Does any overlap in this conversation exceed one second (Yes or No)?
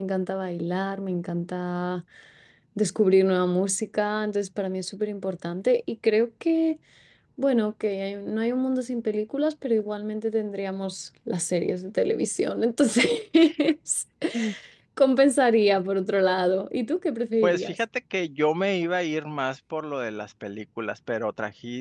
No